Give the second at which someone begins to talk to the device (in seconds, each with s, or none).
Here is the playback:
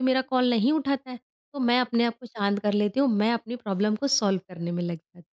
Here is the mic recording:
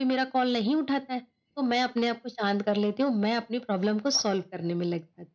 none